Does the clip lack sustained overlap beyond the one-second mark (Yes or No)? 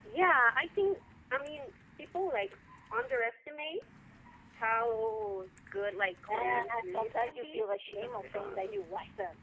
No